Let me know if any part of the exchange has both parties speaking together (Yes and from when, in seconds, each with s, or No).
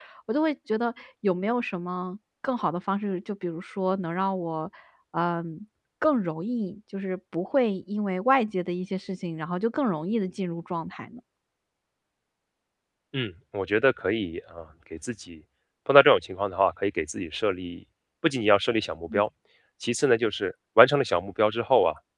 No